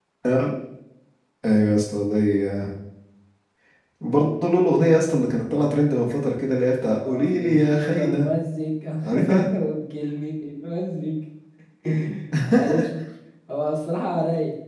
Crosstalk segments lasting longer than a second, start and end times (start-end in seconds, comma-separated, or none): 7.0-8.3